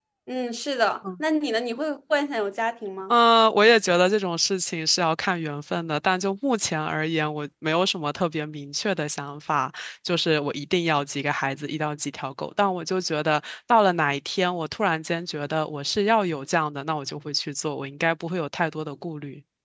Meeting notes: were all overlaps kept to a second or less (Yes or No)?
Yes